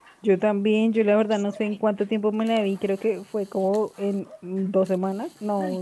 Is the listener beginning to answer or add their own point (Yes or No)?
Yes